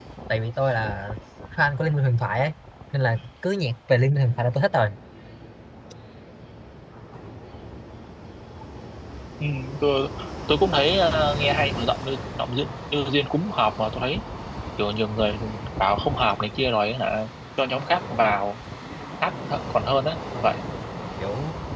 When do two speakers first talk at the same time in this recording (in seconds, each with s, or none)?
none